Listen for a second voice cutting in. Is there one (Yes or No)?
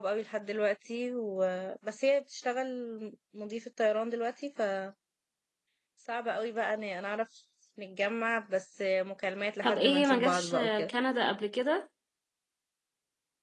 Yes